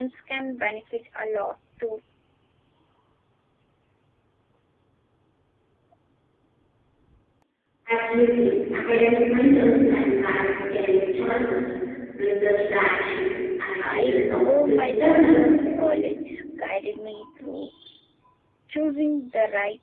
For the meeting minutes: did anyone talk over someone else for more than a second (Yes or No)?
Yes